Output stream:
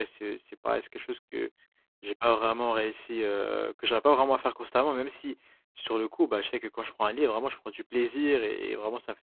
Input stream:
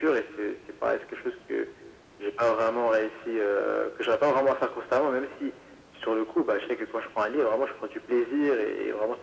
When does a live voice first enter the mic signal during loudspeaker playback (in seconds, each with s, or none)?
none